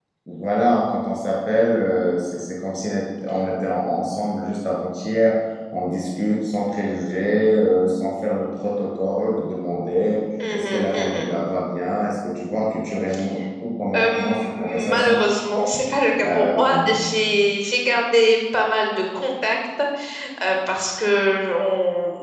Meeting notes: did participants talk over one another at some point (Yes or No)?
Yes